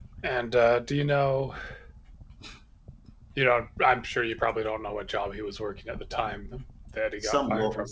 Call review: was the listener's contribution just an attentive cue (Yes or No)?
No